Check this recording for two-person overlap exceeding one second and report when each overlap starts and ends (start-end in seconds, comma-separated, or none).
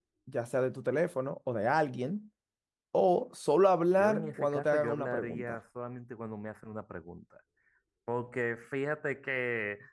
4.0-5.6